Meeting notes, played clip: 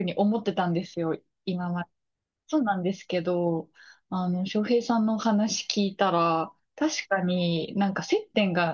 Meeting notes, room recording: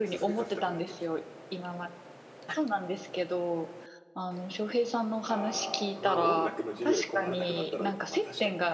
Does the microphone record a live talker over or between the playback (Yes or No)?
Yes